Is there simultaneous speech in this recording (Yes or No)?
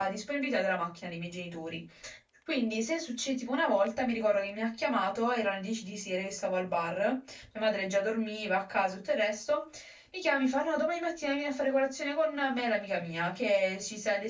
No